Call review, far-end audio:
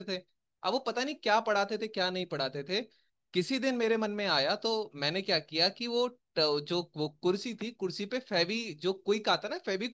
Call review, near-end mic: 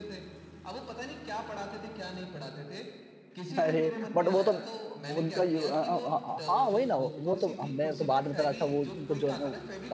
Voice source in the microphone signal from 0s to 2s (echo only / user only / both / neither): echo only